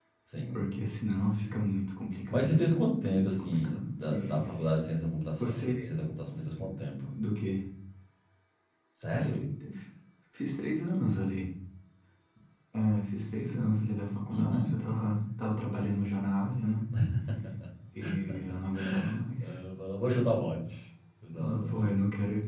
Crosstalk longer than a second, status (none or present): present